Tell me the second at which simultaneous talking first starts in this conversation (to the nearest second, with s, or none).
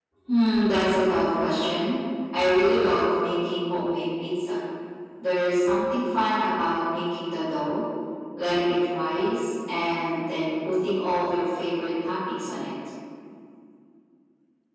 none